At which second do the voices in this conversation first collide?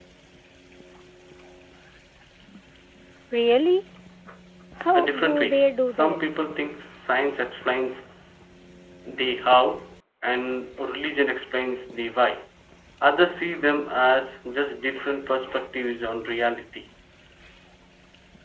5.0 s

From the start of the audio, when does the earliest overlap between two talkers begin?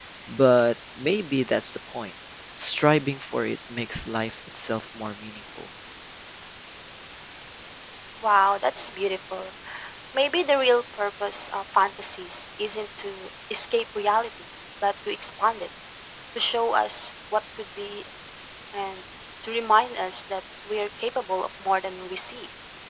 none

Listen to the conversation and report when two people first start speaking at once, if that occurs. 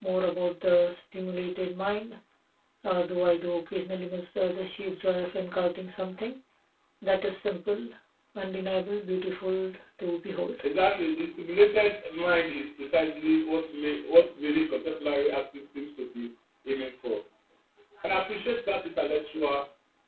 none

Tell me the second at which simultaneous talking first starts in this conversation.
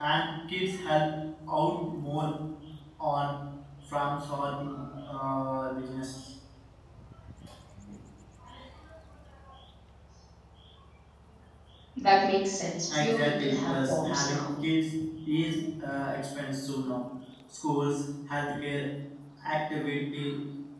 12.9 s

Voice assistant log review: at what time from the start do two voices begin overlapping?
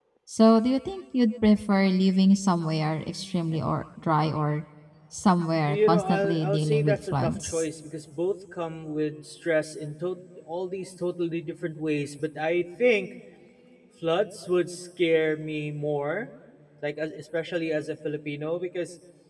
5.7 s

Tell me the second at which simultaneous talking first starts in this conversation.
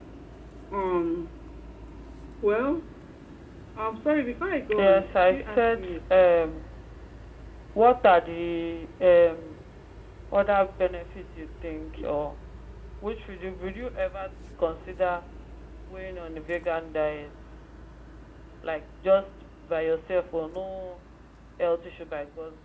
4.7 s

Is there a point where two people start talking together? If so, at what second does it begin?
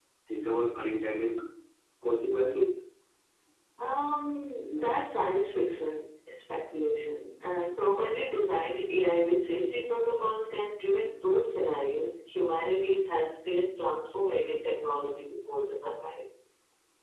none

